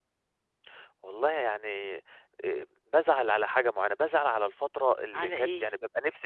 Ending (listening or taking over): listening